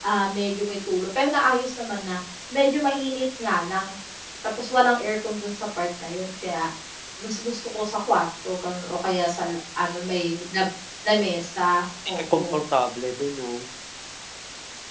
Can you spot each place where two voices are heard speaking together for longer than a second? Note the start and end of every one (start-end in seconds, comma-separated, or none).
none